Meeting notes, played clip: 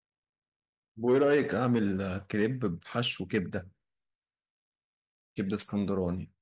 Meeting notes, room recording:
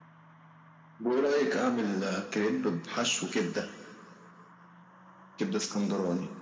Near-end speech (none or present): none